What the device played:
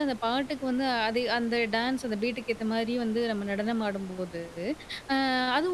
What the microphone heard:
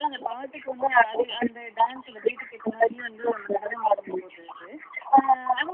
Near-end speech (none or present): none